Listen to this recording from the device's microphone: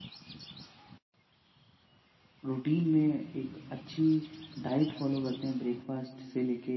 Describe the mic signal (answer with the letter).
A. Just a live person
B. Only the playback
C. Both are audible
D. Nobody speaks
A